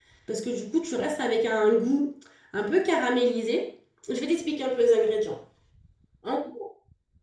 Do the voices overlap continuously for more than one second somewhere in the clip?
No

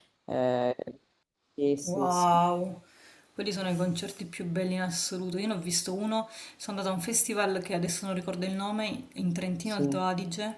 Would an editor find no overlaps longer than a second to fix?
Yes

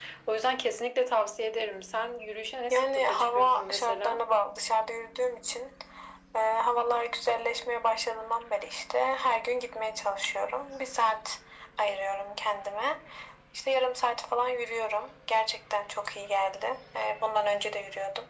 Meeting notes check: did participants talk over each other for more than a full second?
Yes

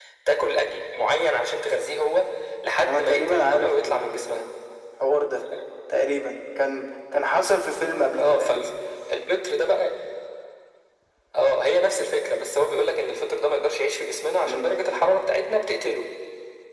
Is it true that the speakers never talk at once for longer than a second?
No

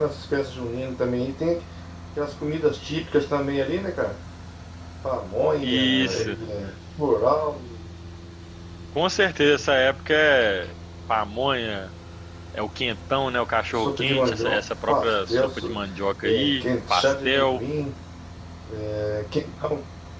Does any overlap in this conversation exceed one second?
Yes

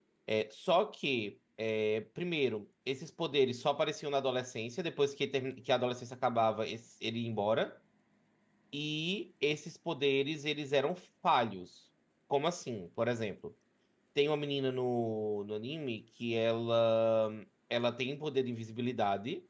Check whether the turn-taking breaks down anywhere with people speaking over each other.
No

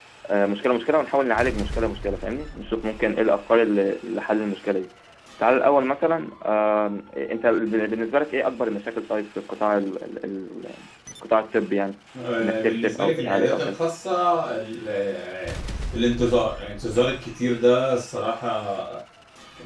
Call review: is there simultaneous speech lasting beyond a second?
Yes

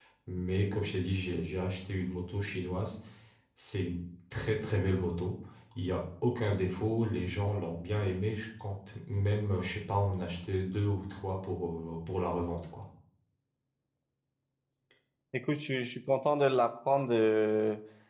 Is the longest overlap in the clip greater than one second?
No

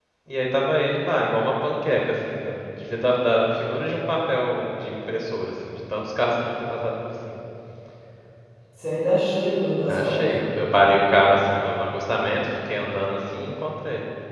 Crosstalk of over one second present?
No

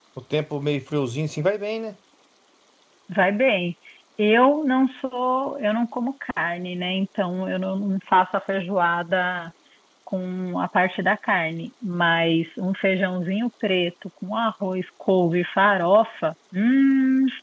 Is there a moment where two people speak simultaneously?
No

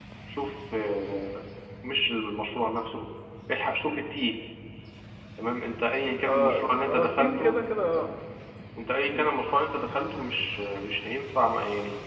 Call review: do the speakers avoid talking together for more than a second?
No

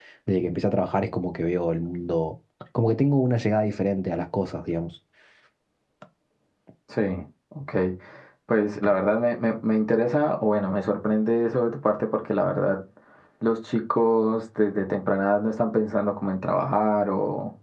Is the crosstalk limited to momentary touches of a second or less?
Yes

